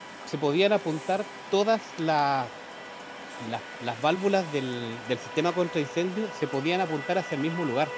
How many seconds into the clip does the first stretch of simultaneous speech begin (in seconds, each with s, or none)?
none